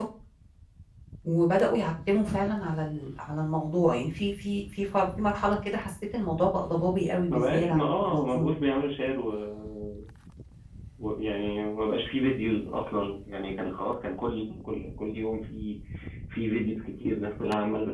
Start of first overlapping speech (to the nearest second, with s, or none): 7 s